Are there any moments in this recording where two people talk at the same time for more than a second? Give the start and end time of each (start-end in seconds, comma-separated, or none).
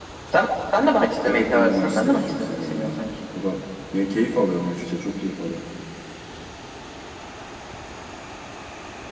1.2-3.0